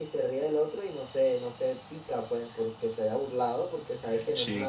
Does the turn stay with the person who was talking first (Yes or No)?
Yes